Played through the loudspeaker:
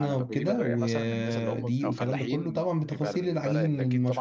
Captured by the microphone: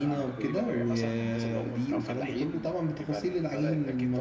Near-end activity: none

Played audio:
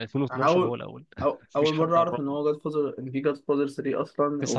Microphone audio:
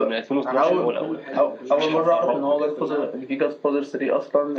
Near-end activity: present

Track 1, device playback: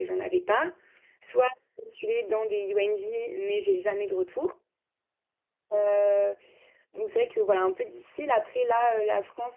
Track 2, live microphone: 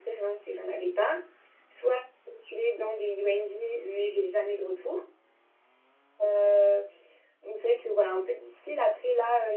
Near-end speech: none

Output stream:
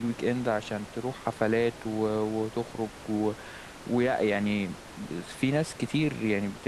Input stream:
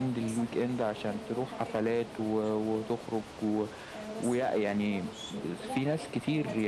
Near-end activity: present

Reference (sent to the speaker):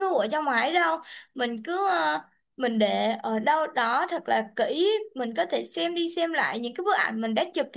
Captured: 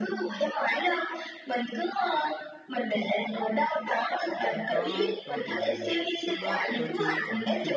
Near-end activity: present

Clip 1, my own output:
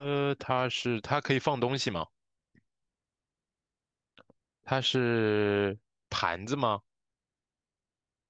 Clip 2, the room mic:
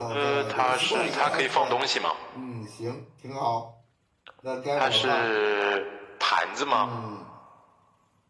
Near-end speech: present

